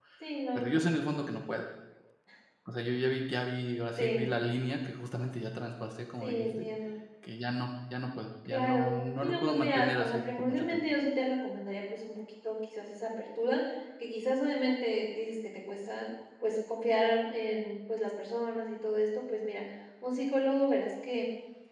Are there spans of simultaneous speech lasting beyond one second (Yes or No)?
Yes